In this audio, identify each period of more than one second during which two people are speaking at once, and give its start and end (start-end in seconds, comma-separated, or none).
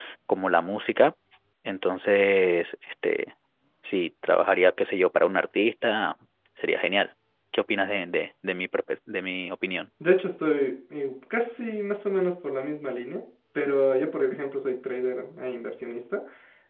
none